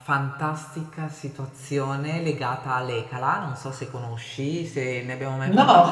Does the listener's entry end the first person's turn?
No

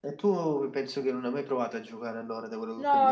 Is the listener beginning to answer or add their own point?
Yes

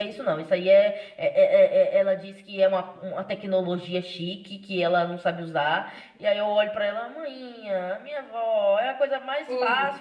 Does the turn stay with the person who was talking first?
Yes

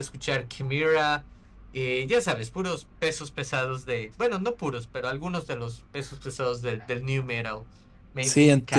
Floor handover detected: Yes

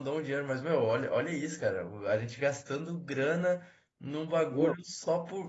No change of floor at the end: Yes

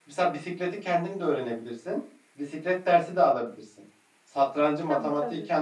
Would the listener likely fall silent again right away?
Yes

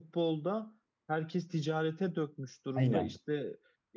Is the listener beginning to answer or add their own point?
No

